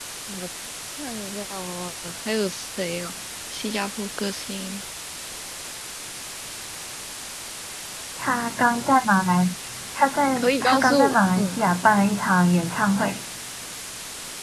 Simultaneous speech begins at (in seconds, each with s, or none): 10.4 s